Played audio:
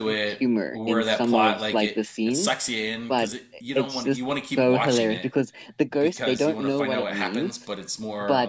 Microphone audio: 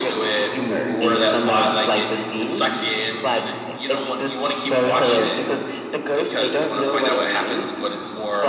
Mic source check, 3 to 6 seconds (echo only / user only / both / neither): echo only